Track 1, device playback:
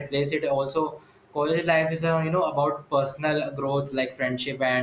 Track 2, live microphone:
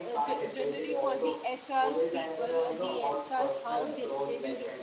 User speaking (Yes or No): Yes